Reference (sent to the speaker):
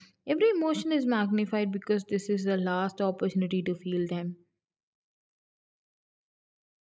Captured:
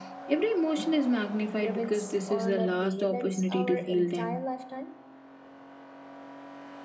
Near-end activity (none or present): present